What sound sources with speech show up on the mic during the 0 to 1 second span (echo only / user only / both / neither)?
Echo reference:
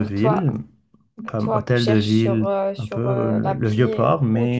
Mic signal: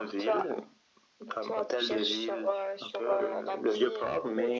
echo only